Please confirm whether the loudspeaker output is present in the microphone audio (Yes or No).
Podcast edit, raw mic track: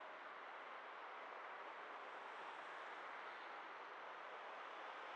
No